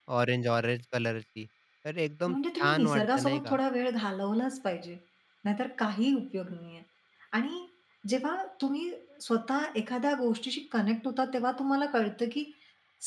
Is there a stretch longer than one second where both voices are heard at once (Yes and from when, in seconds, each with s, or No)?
Yes, from 2.3 s